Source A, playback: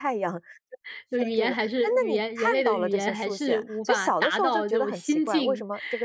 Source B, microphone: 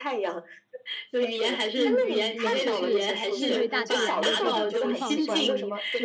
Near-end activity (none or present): present